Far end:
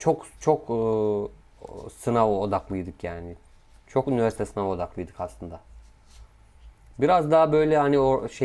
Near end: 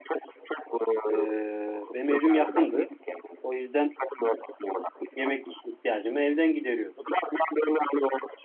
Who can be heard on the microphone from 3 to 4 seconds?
both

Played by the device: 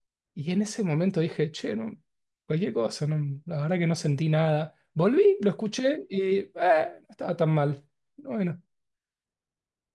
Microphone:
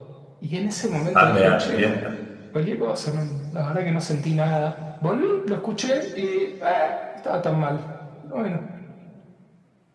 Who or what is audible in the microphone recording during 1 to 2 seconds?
both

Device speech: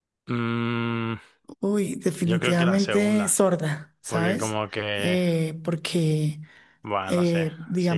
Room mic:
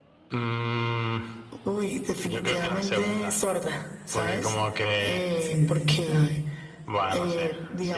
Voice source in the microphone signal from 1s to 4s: echo only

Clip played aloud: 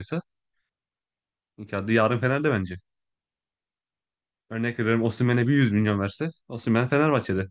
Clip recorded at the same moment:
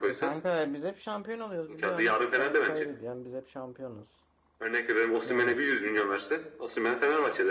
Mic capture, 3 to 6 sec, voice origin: both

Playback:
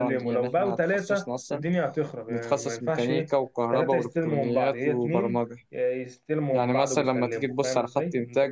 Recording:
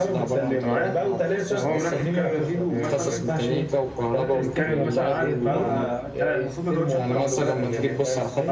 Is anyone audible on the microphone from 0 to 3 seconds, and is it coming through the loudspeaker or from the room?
both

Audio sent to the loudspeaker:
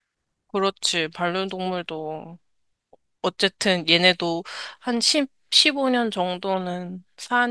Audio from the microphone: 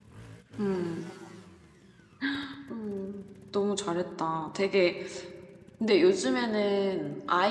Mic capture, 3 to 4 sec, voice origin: user only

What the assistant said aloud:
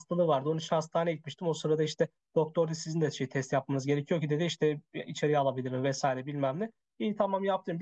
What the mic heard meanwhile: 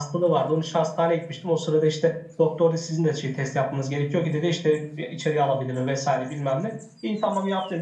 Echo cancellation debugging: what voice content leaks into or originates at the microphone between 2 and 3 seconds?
echo only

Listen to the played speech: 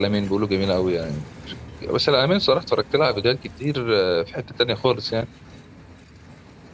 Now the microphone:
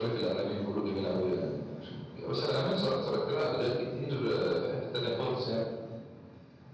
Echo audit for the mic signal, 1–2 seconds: echo only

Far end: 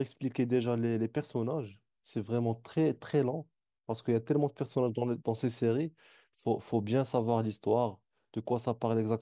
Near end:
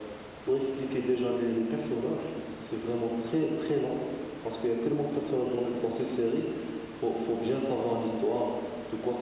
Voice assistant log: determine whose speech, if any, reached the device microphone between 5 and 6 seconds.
echo only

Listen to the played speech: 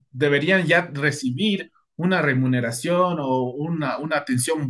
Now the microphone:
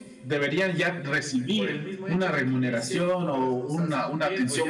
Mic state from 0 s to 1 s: echo only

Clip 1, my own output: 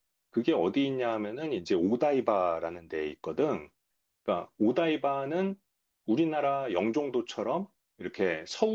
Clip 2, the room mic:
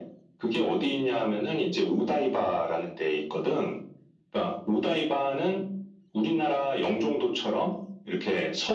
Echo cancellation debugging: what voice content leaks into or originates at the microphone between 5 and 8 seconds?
echo only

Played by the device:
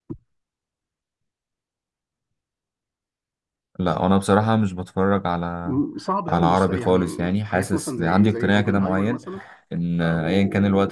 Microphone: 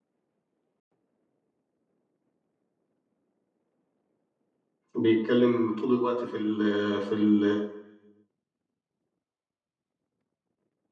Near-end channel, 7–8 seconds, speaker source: user only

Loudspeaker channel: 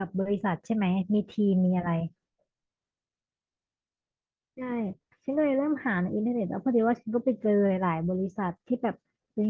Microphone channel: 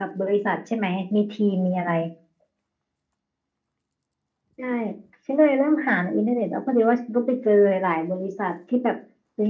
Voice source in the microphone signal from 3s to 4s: neither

